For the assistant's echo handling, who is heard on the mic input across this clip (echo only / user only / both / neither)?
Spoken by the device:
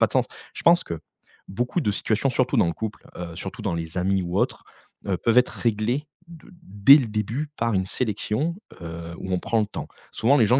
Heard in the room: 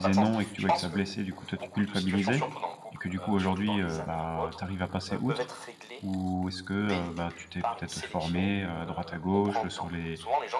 both